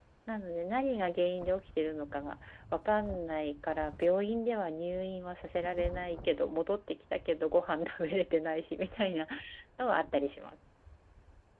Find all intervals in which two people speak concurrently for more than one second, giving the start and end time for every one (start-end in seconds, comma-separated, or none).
none